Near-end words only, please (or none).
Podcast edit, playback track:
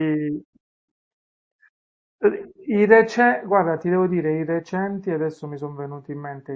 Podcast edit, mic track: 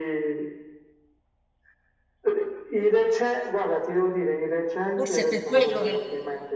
Forse è per quello che...